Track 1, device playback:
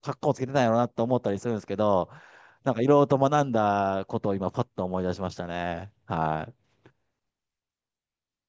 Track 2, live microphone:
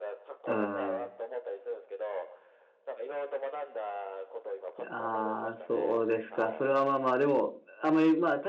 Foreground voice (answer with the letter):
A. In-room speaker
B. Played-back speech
A